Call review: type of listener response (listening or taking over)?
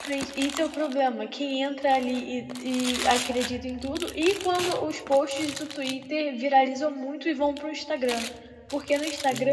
listening